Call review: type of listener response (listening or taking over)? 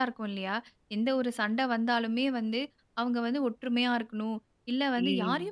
listening